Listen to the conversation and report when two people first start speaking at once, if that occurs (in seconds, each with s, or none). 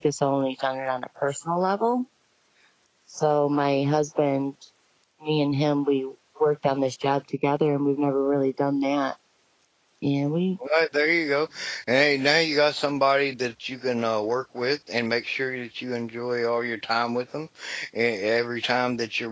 none